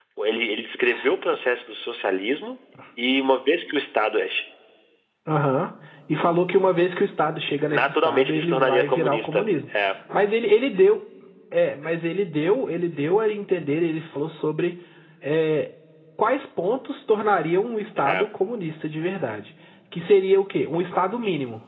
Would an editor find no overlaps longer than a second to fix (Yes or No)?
No